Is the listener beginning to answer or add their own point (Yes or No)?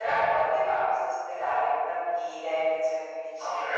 Yes